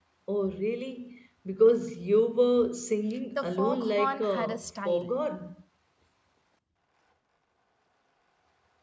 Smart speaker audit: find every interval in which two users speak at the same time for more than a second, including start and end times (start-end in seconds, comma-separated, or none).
3.4-5.1